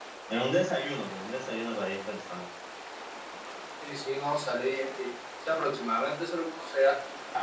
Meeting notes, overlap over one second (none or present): none